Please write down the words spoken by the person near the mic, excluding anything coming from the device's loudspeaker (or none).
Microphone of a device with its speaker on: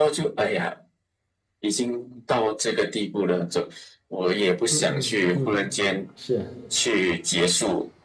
嗯嗯嗯，是，